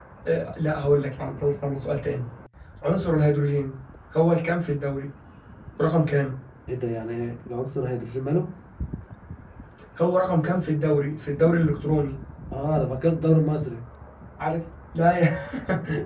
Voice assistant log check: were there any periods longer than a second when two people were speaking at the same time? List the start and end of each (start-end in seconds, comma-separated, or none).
none